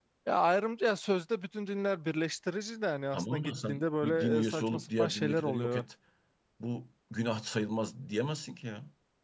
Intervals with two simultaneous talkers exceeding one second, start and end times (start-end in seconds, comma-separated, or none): 3.1-5.8